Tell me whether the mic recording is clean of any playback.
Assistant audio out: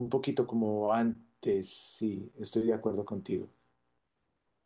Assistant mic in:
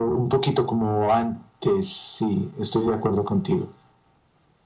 No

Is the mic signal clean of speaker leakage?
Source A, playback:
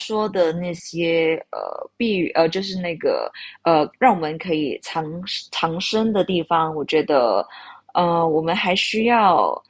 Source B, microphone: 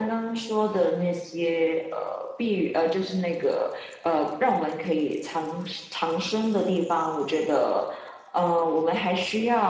No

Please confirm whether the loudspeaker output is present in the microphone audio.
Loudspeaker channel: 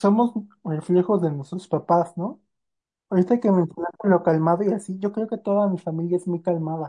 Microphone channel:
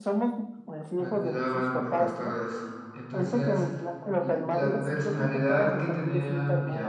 Yes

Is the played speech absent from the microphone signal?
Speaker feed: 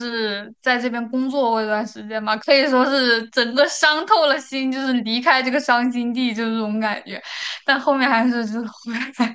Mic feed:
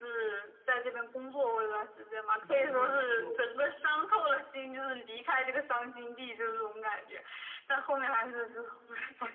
No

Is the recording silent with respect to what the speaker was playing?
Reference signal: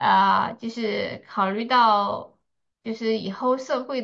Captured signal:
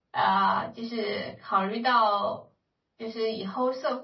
No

